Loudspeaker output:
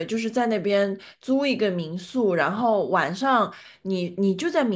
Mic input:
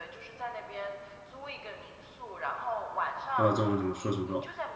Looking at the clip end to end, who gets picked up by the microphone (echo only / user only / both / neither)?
both